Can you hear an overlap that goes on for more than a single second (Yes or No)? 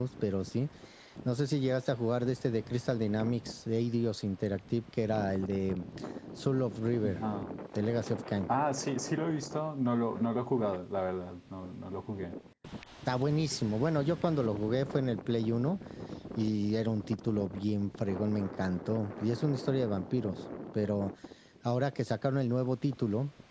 No